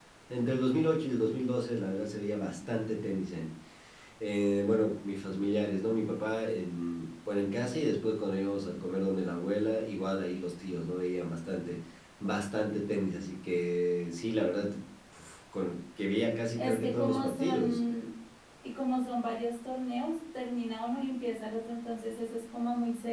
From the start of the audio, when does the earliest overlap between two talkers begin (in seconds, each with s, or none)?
16.6 s